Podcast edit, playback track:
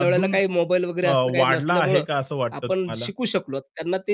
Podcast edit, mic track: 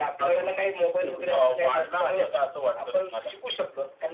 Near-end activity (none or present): present